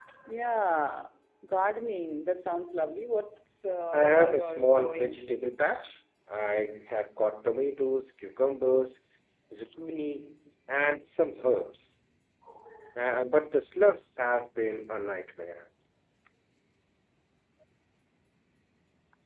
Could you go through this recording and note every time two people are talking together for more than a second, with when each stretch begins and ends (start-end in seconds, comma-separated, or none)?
3.9-5.2